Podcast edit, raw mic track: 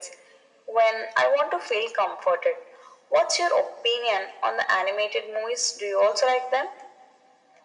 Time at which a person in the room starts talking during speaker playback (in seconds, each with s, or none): none